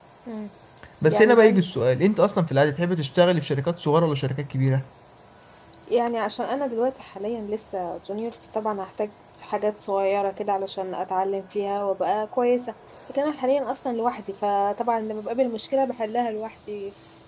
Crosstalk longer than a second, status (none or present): none